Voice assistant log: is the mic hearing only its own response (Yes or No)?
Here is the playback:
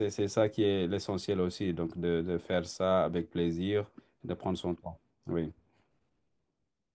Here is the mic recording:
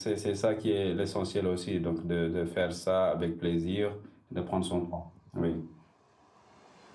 Yes